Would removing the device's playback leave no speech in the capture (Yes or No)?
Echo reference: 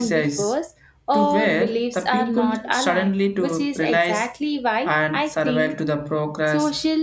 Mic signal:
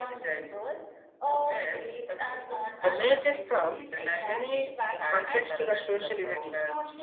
No